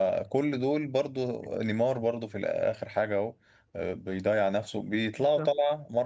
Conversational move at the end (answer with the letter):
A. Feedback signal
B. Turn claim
A